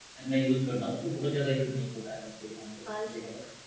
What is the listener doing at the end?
taking over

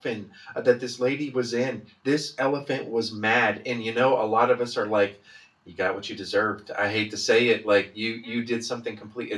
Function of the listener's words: listening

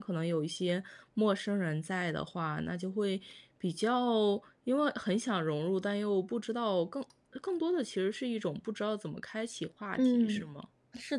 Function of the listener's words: taking over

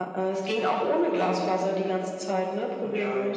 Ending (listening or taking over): taking over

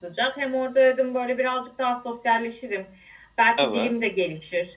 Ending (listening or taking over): listening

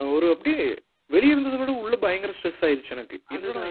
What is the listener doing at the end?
taking over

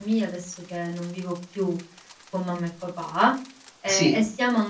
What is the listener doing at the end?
listening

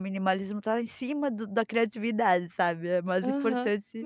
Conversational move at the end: taking over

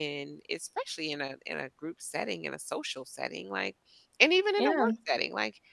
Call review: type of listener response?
listening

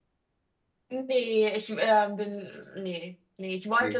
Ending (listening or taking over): listening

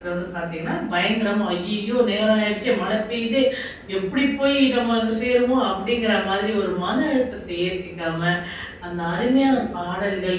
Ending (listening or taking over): listening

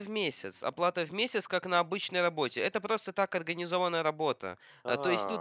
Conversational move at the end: listening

